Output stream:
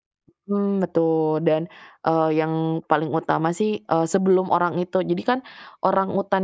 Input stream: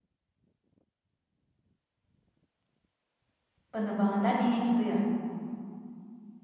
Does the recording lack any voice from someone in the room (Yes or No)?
No